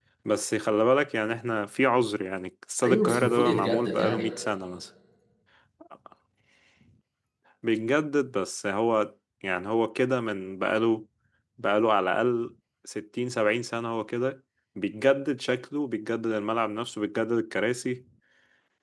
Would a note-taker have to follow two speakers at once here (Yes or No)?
Yes